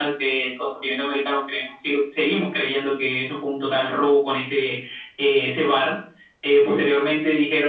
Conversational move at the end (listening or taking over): listening